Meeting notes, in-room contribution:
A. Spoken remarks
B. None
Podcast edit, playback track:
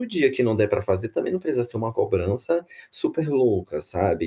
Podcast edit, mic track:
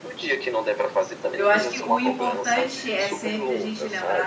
A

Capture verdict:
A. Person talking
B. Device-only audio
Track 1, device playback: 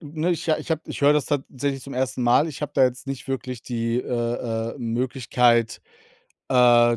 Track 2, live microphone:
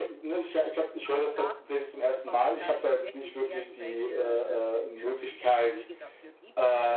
A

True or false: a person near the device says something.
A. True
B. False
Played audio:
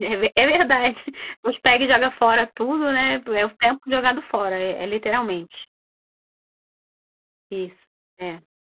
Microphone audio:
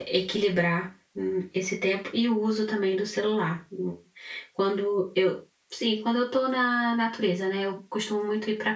A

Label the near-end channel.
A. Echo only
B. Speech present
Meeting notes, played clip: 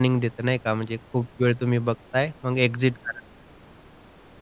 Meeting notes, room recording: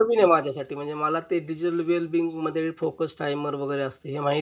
B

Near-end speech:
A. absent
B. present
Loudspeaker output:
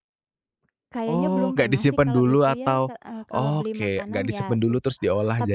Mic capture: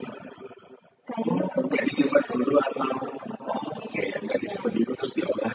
A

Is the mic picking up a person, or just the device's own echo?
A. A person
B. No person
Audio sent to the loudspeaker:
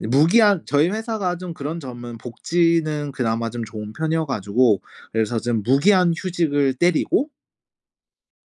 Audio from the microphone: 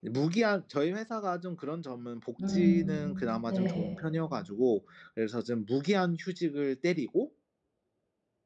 A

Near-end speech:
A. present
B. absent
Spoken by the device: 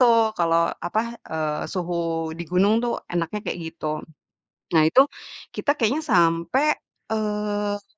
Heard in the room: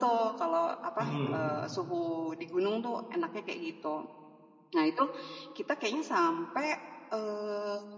A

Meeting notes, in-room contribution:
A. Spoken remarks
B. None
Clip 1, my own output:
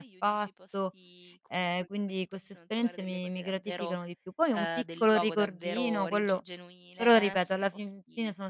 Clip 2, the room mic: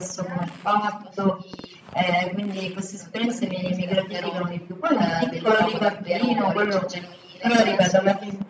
B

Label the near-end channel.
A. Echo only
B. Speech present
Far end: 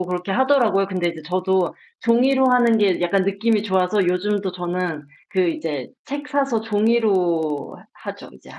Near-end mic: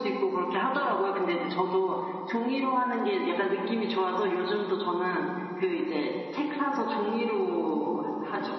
A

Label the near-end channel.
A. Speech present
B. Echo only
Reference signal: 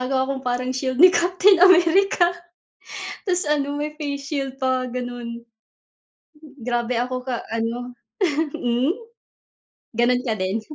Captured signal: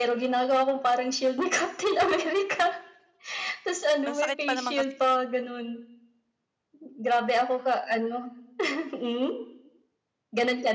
A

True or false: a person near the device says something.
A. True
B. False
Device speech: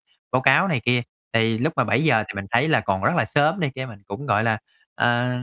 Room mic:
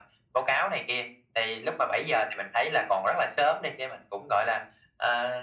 B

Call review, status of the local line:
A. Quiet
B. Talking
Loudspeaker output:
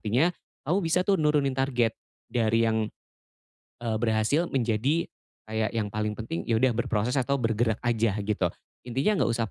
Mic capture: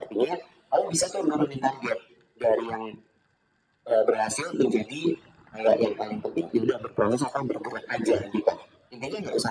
A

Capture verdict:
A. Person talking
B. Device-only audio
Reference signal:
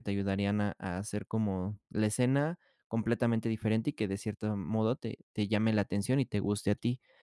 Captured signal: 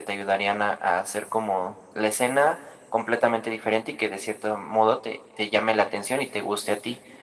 B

